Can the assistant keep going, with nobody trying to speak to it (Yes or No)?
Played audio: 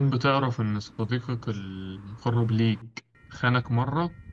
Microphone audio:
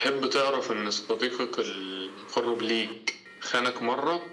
Yes